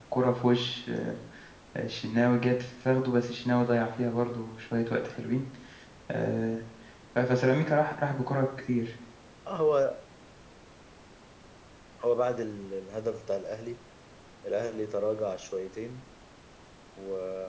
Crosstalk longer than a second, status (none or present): none